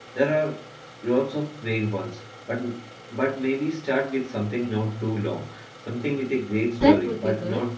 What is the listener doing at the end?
taking over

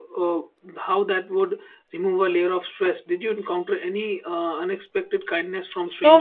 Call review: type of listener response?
taking over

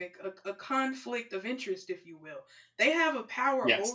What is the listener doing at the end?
listening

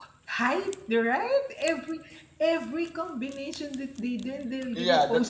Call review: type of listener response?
taking over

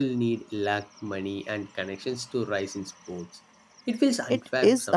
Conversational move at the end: taking over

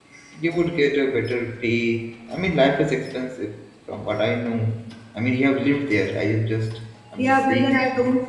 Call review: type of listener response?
taking over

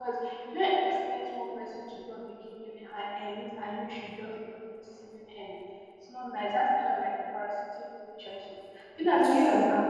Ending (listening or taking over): listening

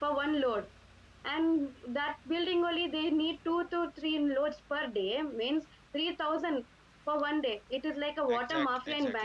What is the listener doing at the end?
taking over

